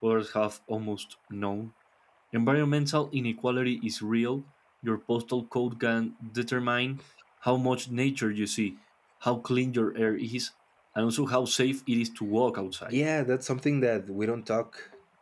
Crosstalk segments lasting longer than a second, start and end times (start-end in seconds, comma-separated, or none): none